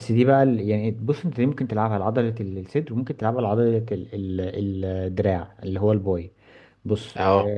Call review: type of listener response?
listening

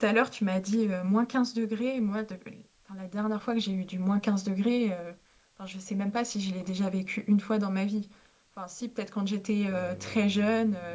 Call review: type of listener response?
listening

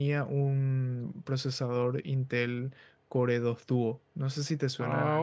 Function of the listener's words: taking over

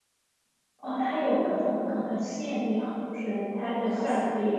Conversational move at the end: listening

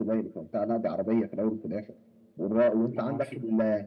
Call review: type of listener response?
listening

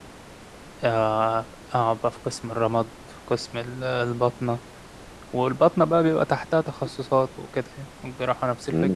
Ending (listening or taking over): taking over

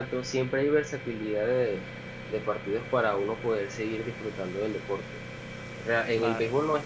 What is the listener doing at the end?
listening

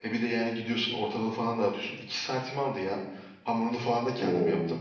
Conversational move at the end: listening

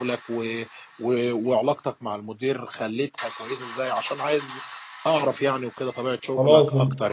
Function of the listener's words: taking over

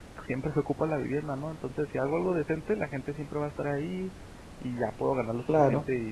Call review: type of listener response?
listening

